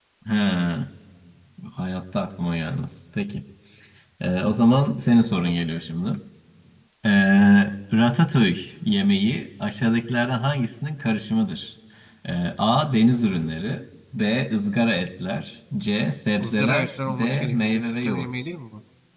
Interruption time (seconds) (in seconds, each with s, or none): 16.4 s